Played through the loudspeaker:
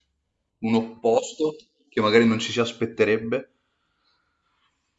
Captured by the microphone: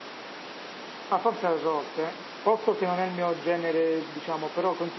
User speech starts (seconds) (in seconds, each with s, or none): 1.1 s